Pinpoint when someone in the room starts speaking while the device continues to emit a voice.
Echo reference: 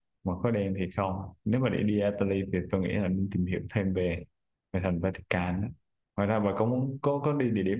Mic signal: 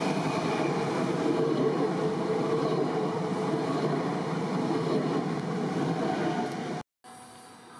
none

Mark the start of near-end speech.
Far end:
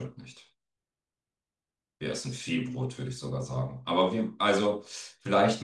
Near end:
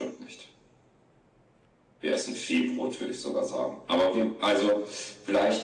none

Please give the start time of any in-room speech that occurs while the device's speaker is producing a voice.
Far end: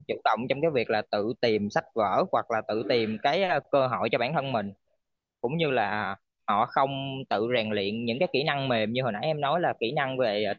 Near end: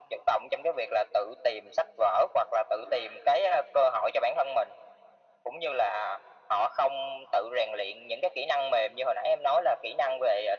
none

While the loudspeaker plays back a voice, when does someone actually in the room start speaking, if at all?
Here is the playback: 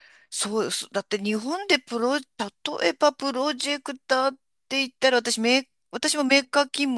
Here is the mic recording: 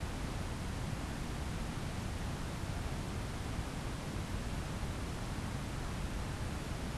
none

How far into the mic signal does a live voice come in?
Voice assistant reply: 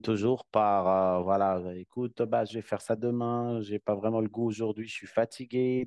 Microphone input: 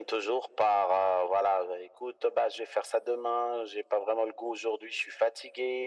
none

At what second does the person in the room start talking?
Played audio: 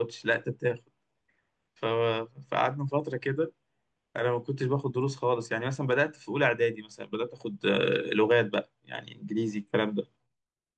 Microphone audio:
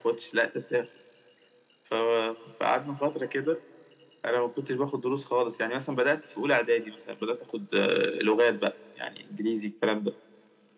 none

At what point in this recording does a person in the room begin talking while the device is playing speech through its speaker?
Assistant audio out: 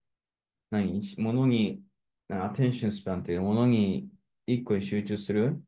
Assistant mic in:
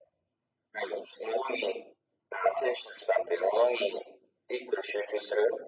none

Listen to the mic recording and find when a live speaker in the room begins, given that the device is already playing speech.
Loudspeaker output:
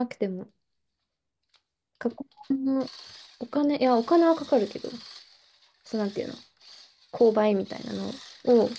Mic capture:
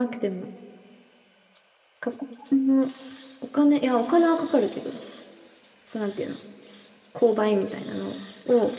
none

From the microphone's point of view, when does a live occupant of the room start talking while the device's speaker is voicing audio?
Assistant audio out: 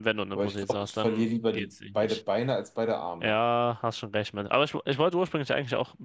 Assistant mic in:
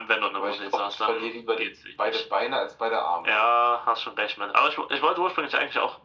none

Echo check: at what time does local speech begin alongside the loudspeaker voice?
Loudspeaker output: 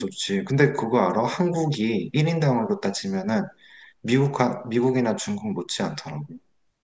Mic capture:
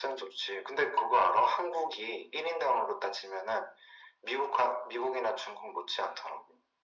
none

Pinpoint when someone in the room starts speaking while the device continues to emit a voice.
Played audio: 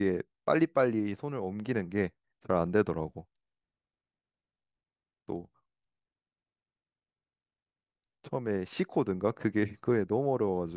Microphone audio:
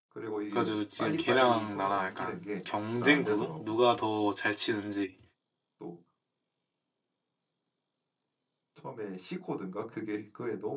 0.5 s

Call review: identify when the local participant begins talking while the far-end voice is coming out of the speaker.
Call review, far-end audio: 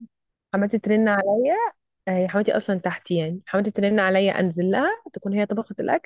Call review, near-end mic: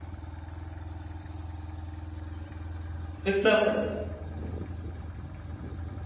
3.2 s

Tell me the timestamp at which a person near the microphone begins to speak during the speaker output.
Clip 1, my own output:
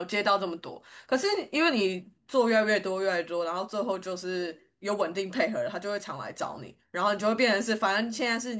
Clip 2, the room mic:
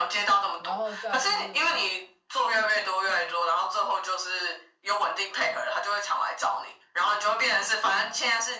0.6 s

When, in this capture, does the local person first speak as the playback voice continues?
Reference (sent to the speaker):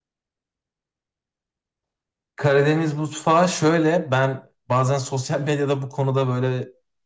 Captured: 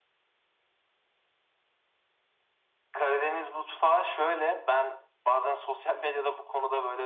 none

